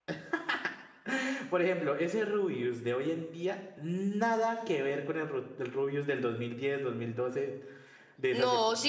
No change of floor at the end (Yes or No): No